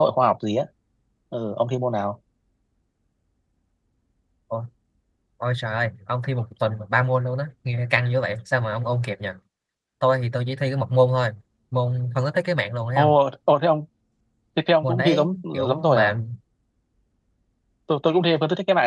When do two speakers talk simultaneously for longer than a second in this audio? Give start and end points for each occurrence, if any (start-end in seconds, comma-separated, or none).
14.8-16.1